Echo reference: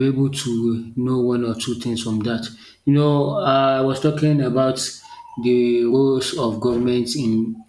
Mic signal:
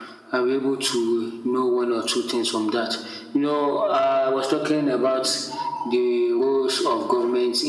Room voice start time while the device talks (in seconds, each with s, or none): none